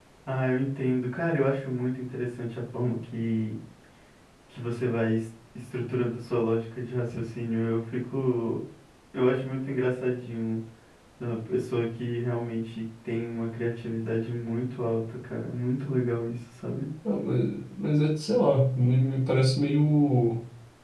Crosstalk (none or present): none